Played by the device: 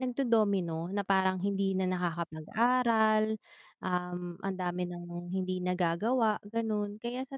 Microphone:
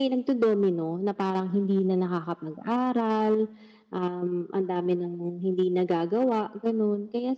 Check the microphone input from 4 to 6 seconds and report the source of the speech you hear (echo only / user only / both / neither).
echo only